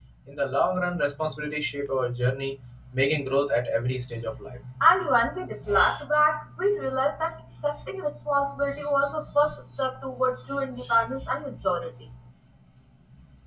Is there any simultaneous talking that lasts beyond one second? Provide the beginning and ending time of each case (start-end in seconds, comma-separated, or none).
none